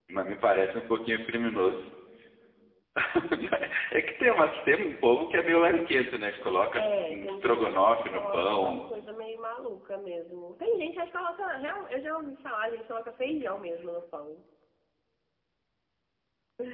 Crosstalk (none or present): present